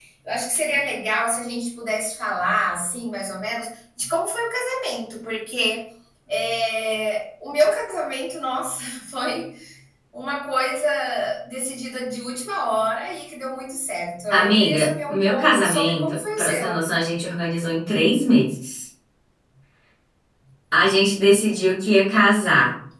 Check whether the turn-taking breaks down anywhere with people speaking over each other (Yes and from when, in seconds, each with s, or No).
Yes, from 14.3 s